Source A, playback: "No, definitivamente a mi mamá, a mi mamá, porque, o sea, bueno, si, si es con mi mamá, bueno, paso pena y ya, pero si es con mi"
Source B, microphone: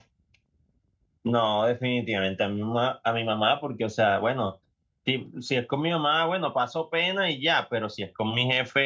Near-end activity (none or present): none